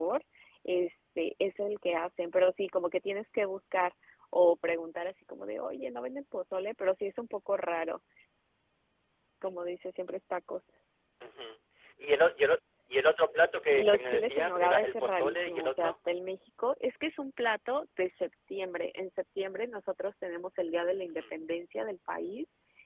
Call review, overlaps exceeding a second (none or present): present